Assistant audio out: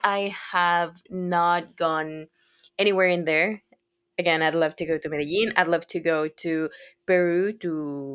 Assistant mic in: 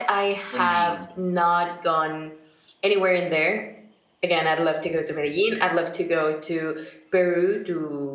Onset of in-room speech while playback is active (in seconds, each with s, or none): 0.5 s